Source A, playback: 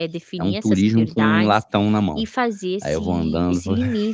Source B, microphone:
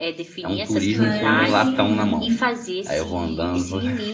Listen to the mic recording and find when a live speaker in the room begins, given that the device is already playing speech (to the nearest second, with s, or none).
1 s